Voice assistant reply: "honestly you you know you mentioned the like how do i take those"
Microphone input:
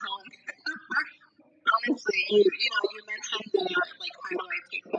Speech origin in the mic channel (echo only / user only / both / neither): echo only